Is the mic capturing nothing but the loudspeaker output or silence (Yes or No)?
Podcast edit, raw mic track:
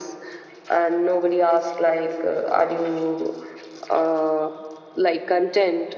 Yes